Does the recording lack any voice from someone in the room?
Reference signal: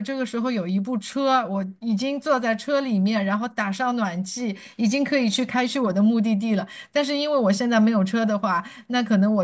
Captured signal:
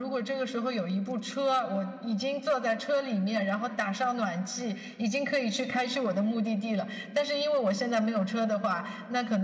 Yes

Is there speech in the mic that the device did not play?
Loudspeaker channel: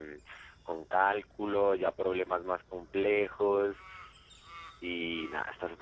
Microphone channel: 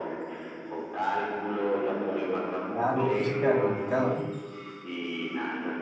Yes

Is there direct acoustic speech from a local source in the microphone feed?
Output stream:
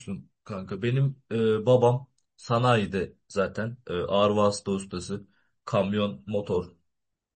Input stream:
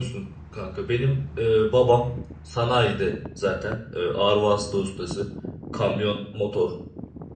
No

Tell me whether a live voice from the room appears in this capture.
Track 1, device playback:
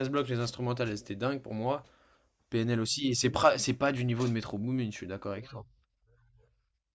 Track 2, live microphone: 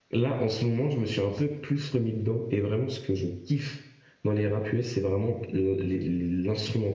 Yes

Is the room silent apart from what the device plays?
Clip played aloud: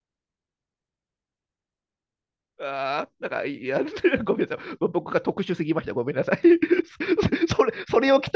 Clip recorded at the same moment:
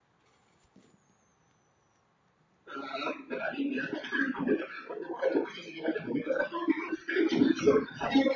Yes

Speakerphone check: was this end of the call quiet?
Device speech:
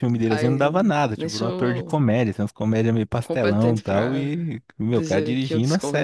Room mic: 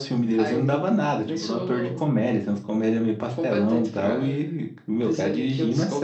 Yes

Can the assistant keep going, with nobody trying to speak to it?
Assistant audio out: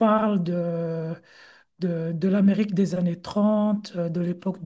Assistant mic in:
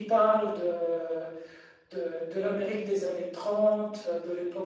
Yes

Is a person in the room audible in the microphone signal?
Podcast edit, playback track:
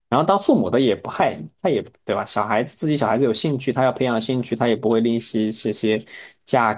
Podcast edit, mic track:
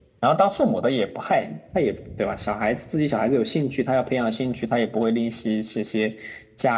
No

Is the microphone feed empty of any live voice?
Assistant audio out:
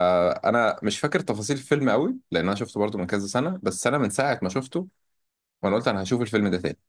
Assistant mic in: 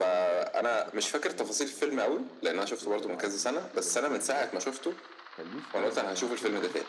No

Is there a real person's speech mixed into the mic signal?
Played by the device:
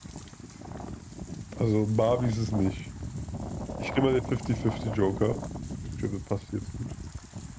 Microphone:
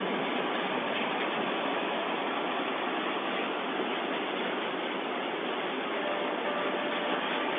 No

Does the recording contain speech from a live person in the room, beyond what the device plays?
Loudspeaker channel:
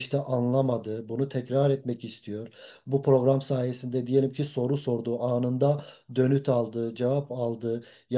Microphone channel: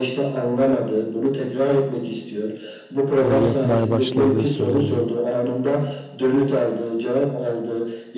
Yes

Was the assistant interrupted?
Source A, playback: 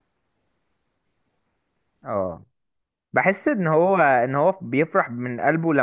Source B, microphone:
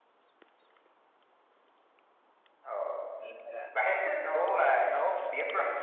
Yes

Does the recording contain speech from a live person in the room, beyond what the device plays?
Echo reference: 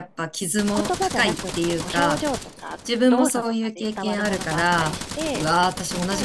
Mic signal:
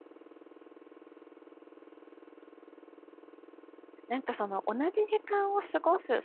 Yes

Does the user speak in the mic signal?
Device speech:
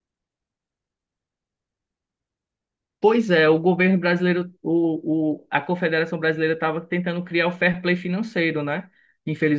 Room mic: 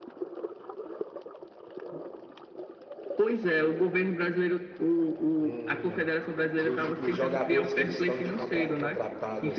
Yes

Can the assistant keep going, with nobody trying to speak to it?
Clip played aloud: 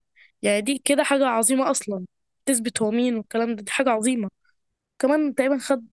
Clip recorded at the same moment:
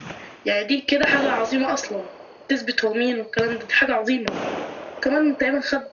Yes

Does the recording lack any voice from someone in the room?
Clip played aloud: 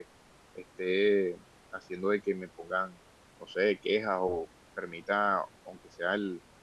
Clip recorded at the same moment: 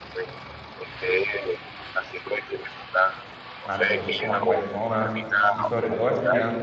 No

